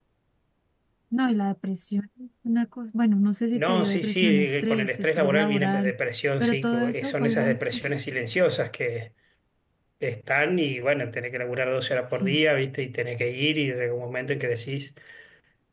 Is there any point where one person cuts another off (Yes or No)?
Yes